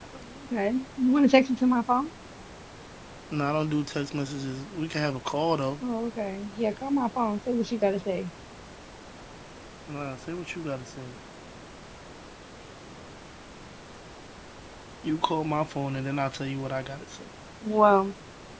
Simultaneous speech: No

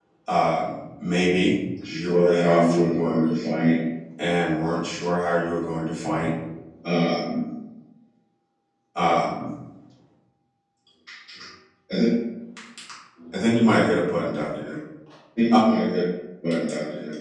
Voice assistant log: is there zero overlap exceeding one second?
No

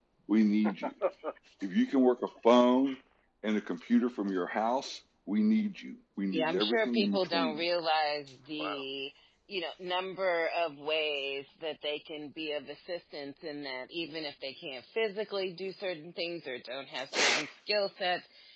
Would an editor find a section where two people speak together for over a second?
Yes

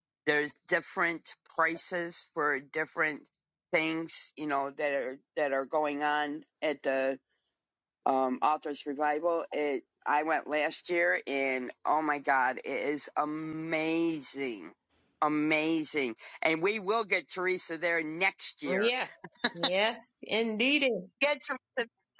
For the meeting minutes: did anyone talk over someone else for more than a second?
No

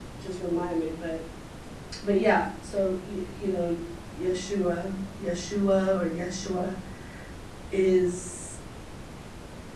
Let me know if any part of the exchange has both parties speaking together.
No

